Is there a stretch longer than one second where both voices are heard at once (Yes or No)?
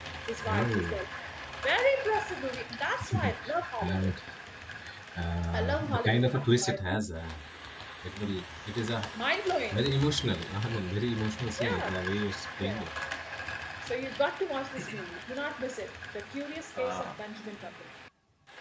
Yes